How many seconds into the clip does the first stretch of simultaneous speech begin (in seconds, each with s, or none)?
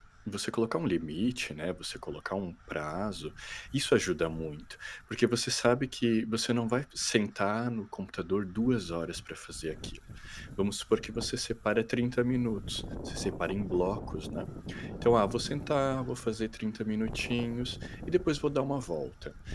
none